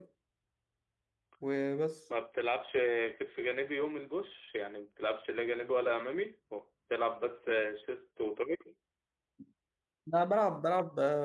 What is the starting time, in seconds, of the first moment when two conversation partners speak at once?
none

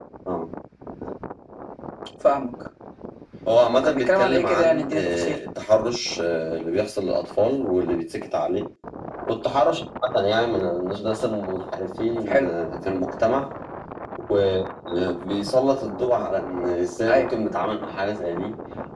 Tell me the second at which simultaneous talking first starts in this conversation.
3.7 s

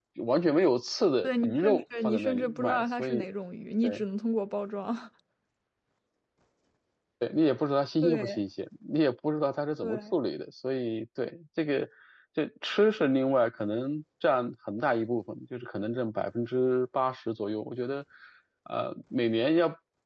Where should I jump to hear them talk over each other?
1.2 s

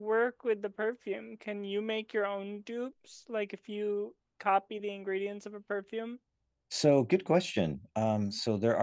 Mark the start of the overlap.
none

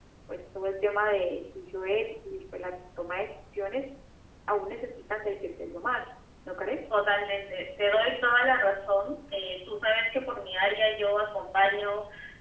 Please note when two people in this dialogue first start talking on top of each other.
none

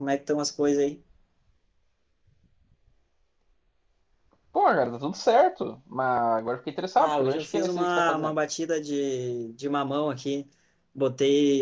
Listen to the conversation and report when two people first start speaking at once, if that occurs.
7.0 s

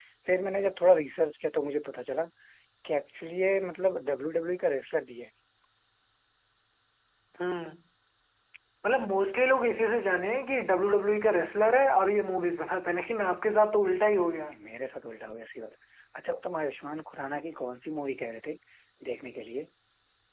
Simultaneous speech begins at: none

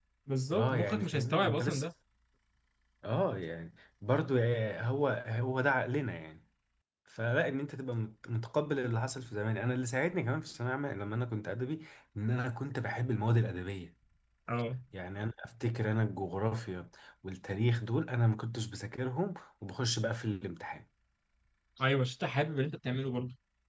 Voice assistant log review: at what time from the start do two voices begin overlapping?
0.5 s

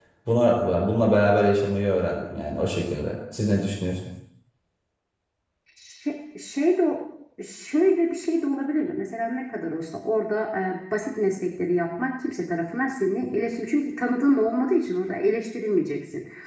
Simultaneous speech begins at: none

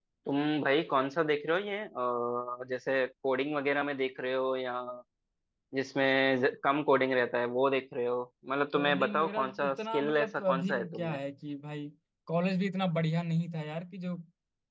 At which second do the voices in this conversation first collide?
8.7 s

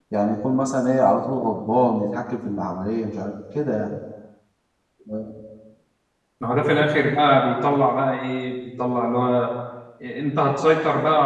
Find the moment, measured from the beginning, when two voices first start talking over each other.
none

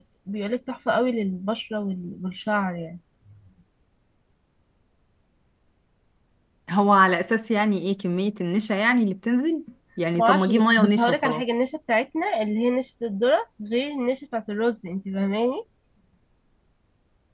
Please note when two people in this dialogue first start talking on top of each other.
10.2 s

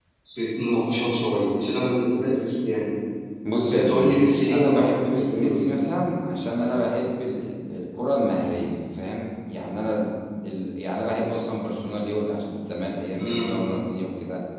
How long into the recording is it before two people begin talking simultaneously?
3.6 s

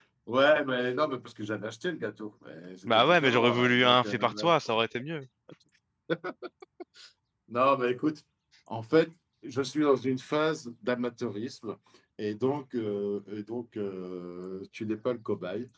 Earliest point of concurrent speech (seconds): 2.9 s

